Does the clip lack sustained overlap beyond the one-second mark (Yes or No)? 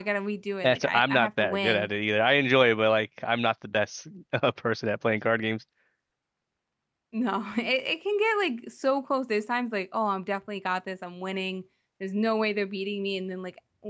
No